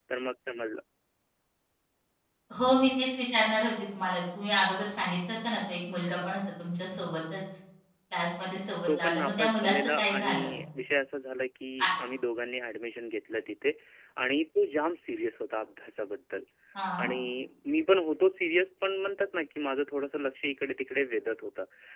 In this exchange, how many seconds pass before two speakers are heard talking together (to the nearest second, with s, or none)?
9 s